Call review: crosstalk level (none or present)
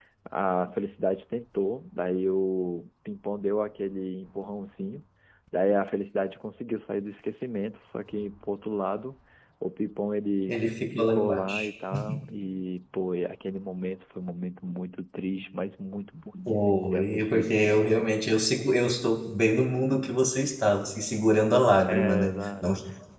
present